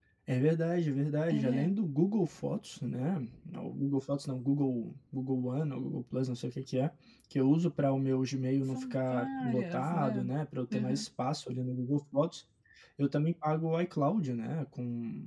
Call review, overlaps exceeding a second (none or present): present